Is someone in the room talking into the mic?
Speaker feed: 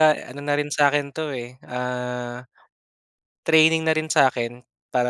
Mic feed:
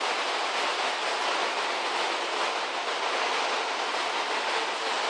No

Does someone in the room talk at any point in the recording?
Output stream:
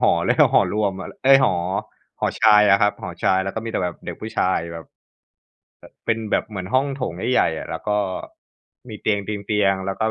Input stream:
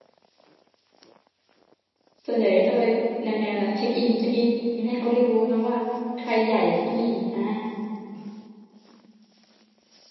Yes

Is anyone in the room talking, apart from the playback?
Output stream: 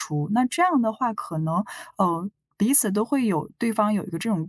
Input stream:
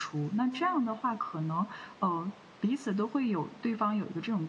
Yes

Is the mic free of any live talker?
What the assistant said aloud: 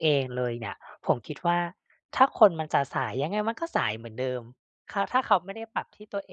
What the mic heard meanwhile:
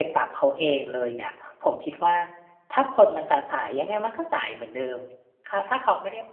Yes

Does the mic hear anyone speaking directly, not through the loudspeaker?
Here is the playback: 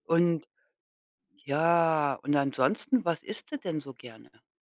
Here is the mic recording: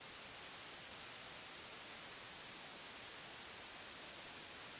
No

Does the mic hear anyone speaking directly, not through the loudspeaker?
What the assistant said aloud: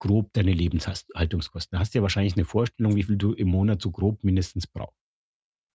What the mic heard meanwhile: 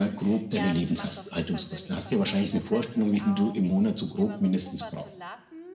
Yes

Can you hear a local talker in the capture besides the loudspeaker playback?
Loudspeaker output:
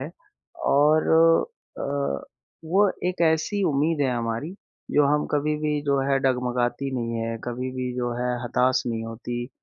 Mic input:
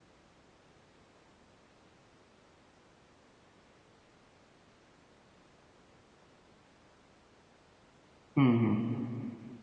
Yes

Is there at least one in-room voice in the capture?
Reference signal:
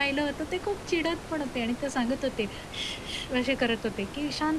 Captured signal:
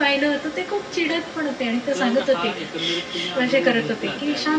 Yes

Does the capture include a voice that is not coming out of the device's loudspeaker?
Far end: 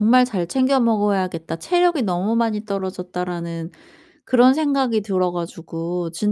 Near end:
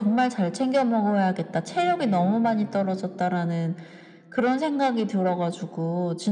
Yes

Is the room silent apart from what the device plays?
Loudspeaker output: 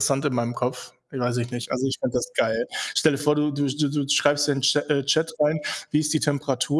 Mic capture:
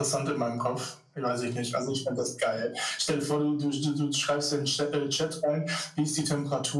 Yes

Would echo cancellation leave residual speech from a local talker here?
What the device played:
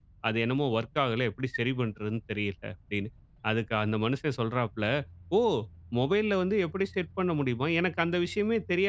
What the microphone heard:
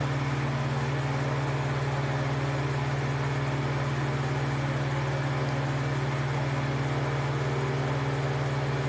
No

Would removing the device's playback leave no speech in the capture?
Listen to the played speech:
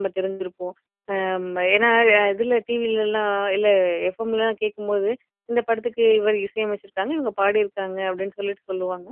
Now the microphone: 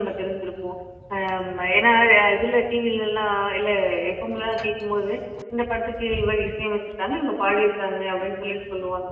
Yes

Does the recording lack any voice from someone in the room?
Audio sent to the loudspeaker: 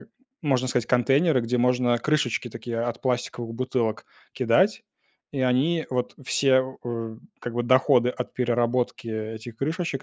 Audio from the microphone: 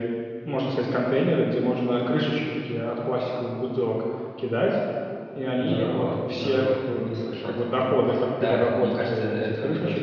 No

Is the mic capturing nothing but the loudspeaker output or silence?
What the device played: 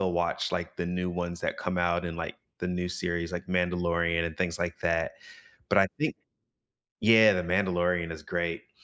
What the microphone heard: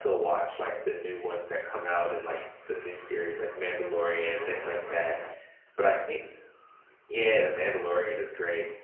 Yes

